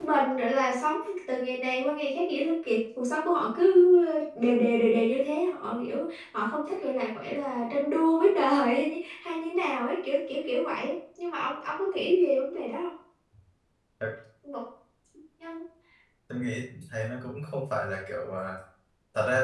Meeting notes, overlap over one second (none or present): none